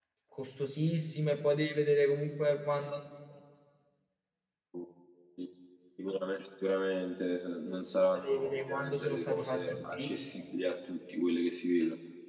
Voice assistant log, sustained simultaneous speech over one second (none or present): present